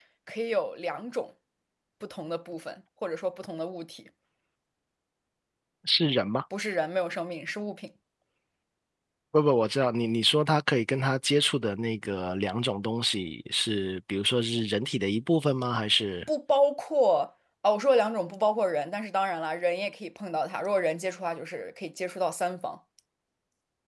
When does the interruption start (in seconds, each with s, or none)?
none